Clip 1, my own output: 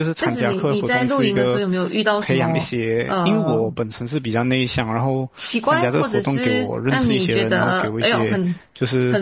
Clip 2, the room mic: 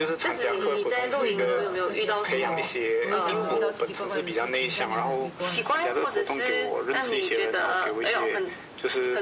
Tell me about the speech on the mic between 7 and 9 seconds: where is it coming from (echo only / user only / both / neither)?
echo only